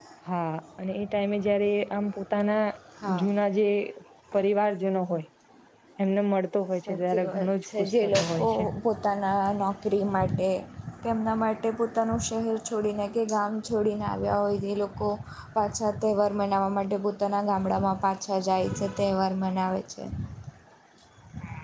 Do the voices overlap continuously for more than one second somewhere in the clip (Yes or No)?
Yes